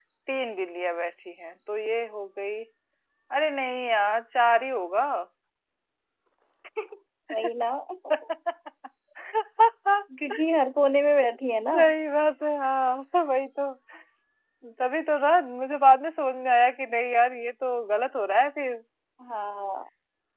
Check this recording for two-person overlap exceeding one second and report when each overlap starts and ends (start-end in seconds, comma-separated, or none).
none